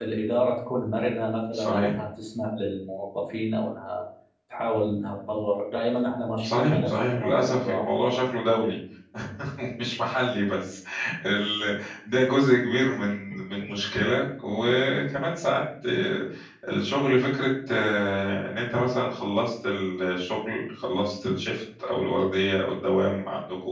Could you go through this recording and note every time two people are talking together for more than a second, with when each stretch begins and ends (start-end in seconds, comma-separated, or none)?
6.4-7.9